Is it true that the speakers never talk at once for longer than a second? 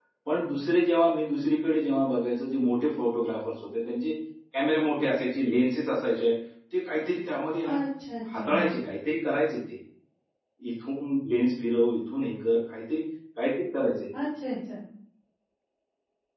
Yes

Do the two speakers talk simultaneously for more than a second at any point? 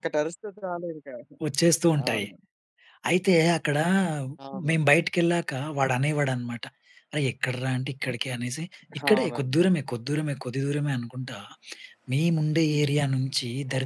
No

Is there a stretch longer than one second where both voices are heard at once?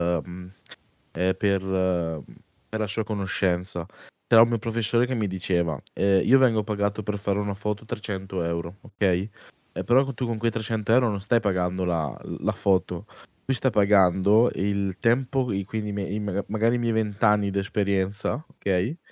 No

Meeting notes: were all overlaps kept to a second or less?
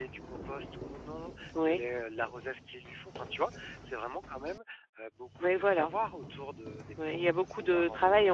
No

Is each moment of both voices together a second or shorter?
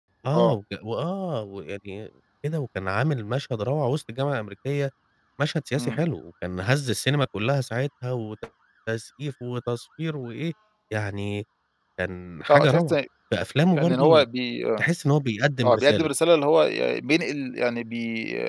Yes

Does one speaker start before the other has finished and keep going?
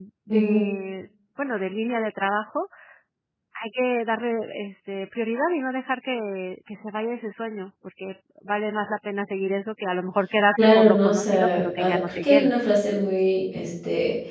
Yes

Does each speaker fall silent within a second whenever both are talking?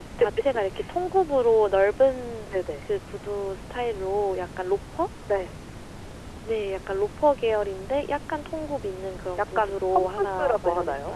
No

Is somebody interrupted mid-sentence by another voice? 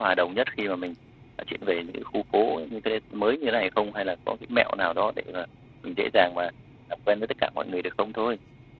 No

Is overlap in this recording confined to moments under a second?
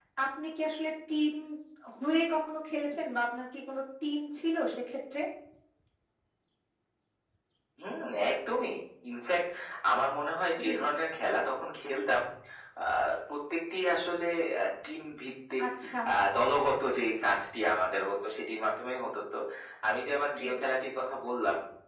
Yes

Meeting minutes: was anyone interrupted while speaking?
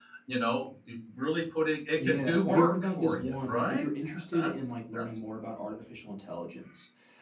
Yes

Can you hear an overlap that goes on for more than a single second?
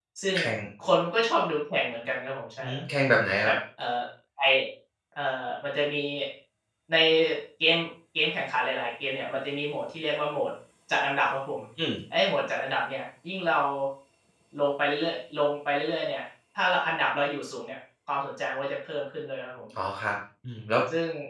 No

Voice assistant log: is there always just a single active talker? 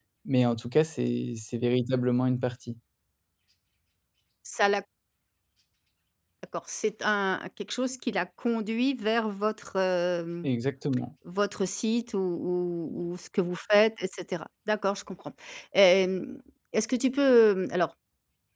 Yes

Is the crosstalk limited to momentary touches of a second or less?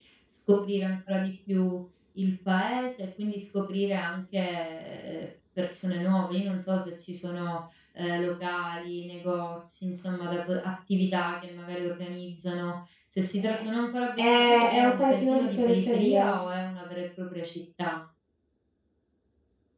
No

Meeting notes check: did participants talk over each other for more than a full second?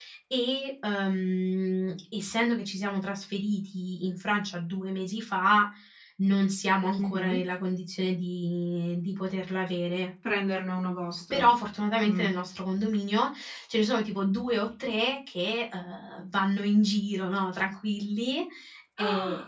No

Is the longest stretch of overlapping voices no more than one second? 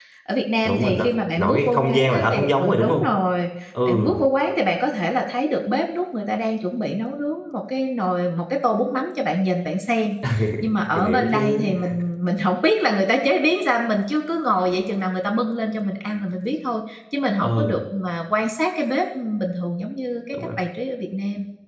No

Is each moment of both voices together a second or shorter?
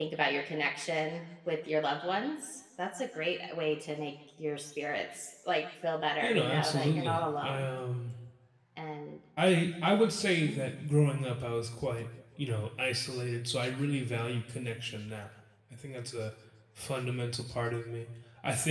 No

